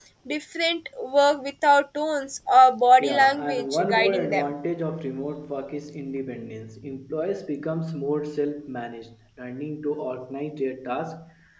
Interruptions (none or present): present